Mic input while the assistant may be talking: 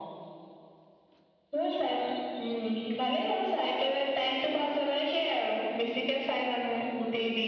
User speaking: No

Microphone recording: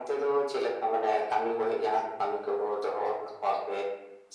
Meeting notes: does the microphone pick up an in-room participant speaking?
No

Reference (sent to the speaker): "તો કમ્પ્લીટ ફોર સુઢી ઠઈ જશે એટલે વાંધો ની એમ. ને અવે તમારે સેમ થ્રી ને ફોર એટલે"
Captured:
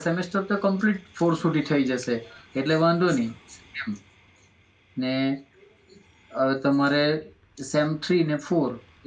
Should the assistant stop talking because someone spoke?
No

